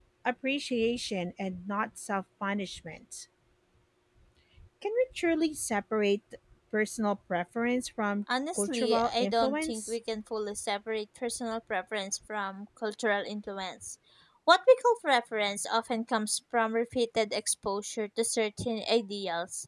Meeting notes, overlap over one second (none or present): present